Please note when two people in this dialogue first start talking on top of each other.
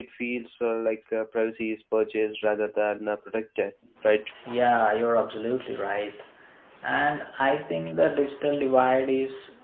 none

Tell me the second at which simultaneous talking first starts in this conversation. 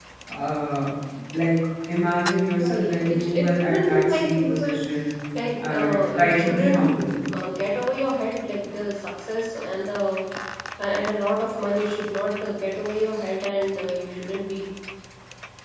2.5 s

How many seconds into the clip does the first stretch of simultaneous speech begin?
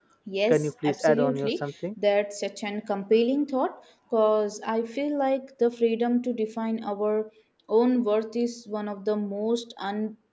0.5 s

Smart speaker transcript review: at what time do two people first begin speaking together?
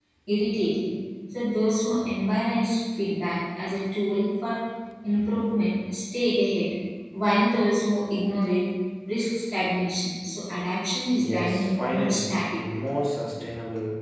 11.2 s

